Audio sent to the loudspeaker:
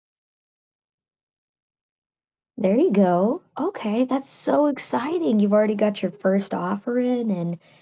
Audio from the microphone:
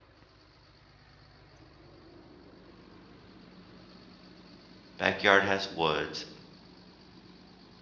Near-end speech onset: 5 s

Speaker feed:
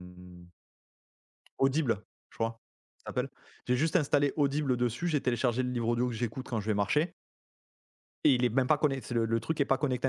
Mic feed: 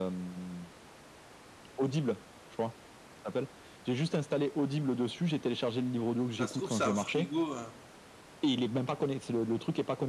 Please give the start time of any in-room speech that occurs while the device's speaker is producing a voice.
6 s

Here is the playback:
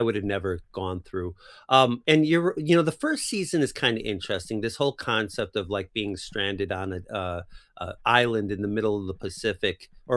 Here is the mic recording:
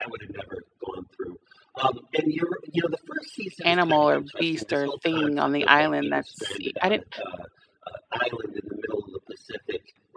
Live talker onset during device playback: 4 s

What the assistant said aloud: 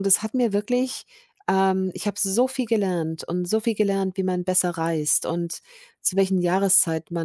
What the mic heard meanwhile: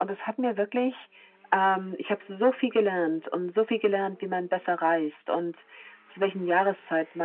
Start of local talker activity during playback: none

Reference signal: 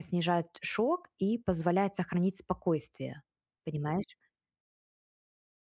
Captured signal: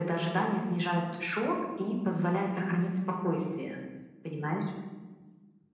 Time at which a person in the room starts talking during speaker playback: none

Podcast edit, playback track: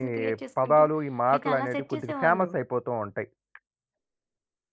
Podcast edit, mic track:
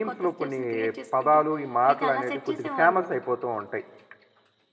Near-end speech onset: none

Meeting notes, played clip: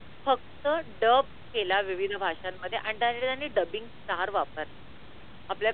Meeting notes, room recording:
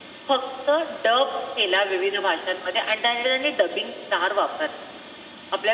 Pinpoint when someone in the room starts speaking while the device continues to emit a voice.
none

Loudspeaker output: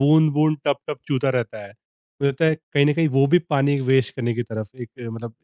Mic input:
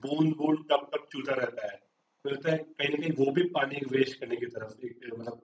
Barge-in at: none

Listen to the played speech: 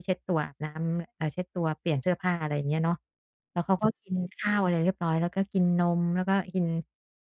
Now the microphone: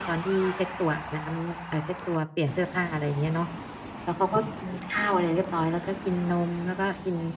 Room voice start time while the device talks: none

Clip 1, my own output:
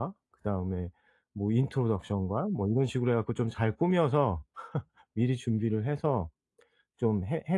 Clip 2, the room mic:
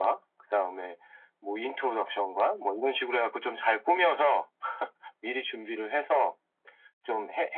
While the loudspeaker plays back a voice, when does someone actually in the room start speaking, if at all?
none

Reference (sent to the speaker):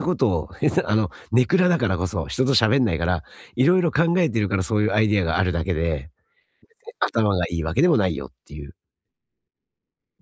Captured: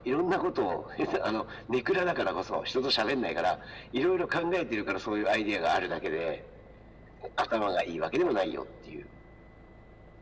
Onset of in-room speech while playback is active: none

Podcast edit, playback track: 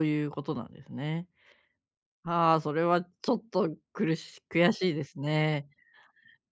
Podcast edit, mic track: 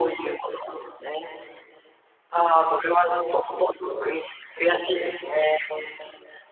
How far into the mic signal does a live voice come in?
none

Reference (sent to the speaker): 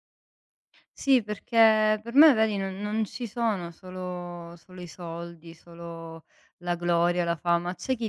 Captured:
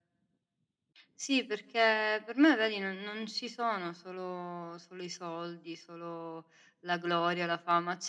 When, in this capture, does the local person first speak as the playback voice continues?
none

